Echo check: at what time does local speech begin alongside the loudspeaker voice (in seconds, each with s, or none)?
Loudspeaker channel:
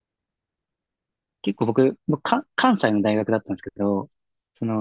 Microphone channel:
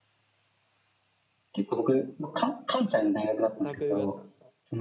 3.5 s